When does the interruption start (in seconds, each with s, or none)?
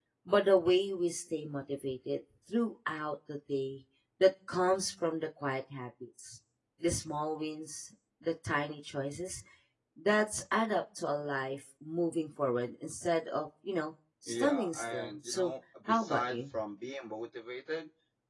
14.3 s